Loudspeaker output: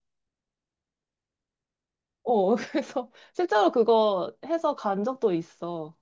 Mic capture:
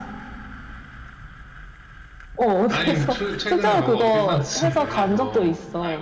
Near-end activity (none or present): present